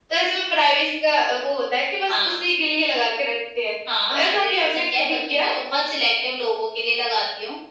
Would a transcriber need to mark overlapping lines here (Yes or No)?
Yes